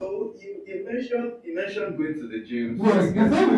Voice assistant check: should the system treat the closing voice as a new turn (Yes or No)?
Yes